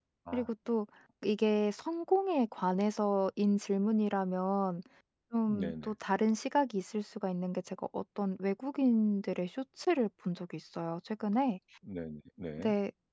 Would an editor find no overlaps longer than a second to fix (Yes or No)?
Yes